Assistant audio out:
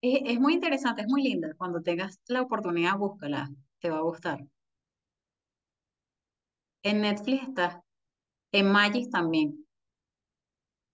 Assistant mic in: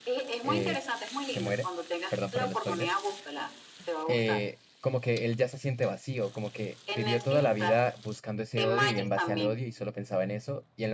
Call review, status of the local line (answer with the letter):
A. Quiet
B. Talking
B